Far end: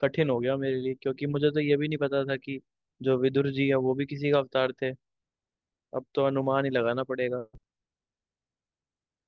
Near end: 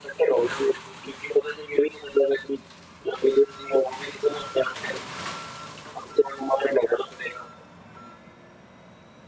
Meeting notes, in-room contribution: none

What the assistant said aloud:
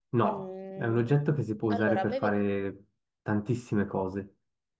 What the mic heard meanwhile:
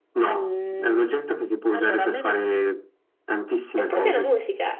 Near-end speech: present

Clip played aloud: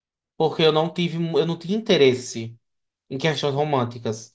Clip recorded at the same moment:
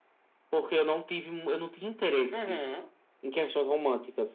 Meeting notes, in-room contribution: present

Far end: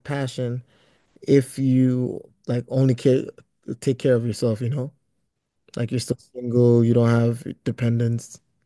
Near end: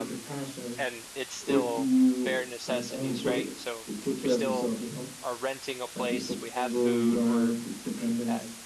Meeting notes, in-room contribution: present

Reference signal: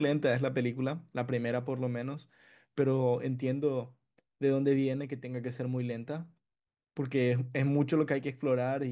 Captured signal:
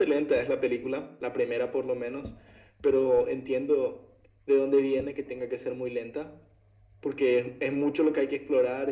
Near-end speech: none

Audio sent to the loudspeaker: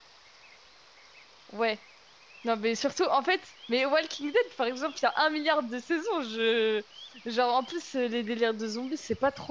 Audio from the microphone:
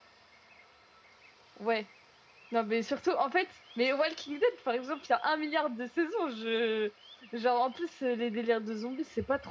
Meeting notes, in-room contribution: none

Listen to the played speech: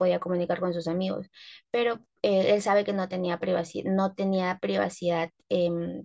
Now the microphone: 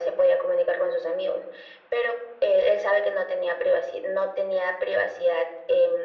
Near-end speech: none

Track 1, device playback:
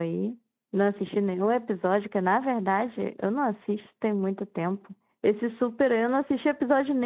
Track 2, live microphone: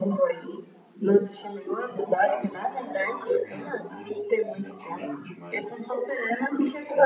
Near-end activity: present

